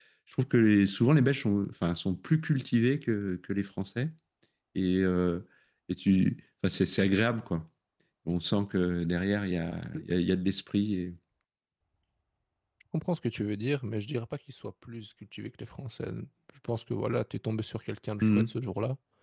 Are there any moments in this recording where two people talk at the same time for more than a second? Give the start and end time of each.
none

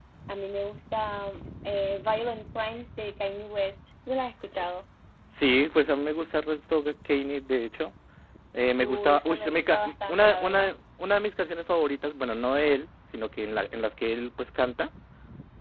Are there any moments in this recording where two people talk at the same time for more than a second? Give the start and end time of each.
8.8-10.7

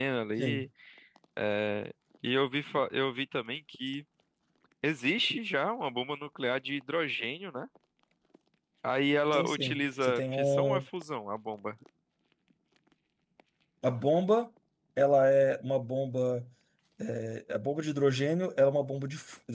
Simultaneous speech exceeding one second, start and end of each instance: 9.3-10.8

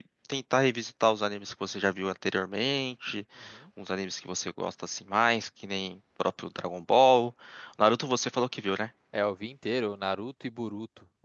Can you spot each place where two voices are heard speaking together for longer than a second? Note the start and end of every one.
none

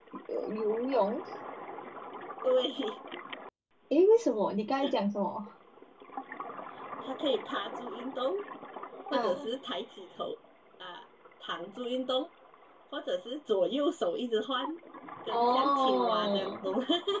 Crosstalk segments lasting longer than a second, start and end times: 15.3-16.6

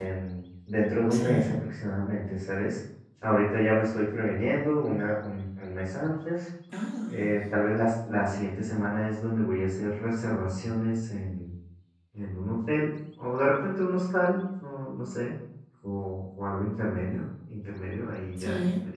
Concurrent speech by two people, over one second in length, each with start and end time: none

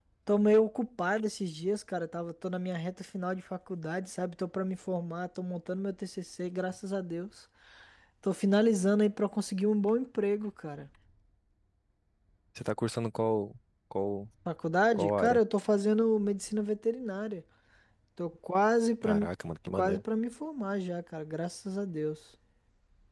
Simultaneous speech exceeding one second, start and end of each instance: none

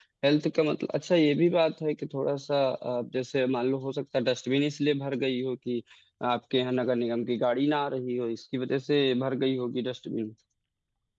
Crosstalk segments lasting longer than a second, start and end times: none

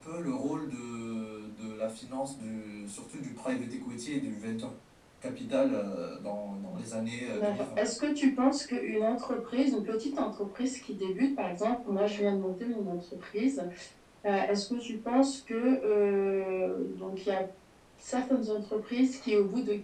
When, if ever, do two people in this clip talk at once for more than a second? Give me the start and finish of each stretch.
none

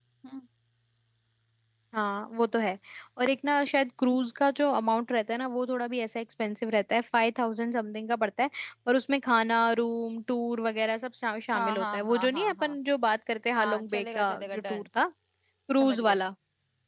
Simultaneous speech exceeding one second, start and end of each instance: 11.6-12.8, 13.6-14.8

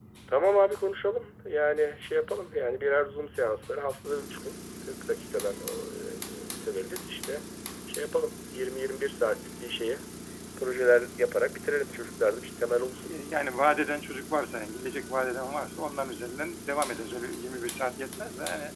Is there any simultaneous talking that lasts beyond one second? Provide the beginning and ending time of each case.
none

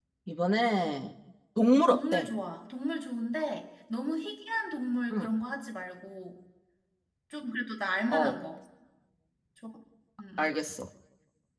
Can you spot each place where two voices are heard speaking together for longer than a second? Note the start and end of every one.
none

